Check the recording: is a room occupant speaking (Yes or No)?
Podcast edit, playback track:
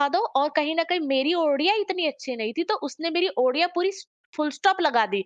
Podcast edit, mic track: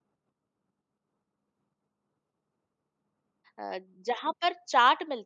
Yes